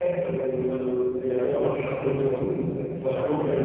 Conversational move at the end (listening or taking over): listening